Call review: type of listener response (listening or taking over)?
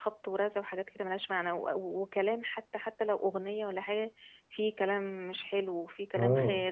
taking over